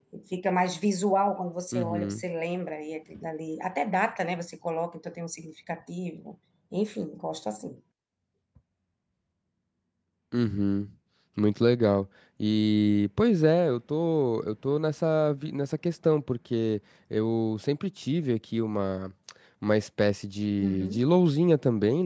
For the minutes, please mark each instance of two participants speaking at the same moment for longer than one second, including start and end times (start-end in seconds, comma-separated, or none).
none